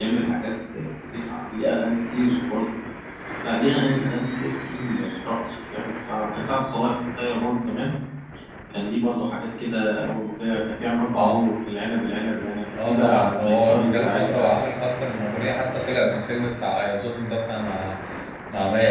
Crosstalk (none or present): present